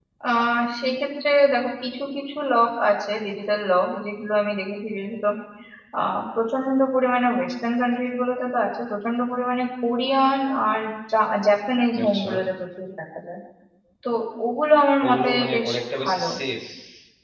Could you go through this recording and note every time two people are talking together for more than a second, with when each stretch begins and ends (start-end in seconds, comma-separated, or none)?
15.0-16.2